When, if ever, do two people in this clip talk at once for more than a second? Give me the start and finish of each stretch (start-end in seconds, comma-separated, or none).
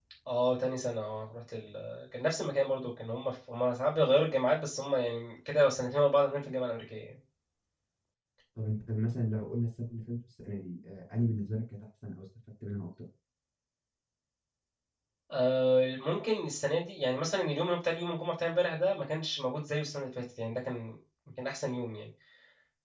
none